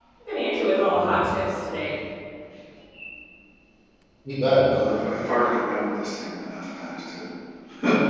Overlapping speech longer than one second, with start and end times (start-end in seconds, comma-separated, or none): none